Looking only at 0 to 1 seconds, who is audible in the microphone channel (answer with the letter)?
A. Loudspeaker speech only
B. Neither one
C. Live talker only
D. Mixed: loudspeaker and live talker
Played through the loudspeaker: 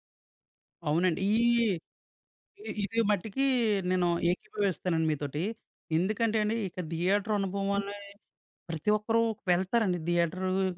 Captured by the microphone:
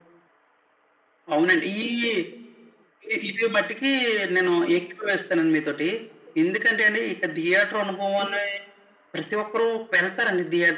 B